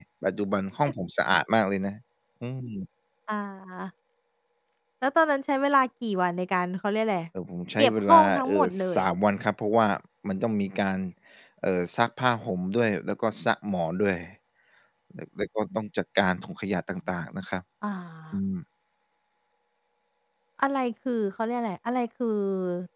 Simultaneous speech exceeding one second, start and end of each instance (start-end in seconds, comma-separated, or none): 7.8-9.0